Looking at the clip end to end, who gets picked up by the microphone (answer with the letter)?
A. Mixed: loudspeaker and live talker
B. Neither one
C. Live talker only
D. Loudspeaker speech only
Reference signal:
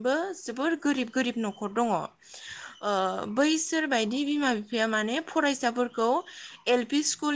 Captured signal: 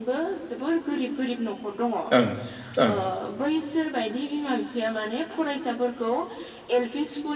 A